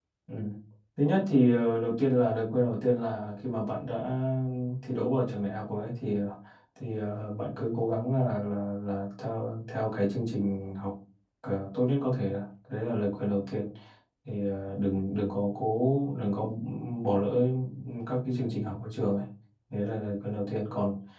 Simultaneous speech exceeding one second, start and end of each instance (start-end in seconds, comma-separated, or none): none